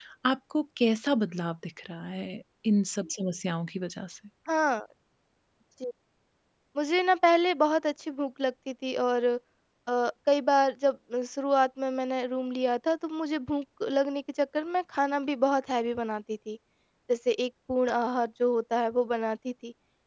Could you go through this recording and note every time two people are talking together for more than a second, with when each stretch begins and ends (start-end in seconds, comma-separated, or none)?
none